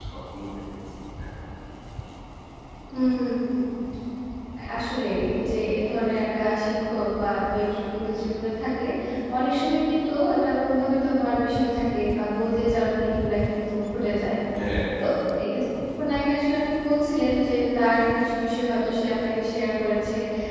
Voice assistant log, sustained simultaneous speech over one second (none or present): none